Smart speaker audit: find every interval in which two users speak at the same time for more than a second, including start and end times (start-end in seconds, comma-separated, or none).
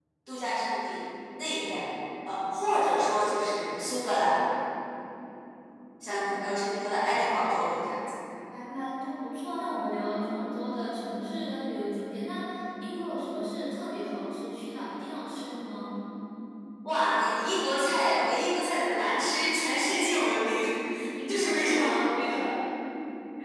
21.3-22.5